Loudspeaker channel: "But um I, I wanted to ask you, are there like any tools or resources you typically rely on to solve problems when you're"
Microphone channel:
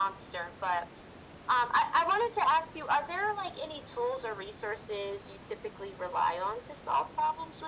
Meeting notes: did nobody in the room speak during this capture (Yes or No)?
Yes